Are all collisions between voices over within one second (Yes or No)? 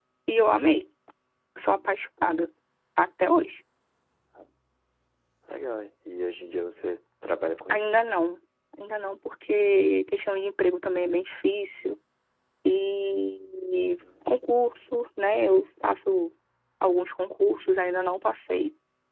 Yes